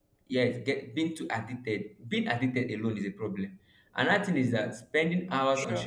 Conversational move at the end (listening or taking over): listening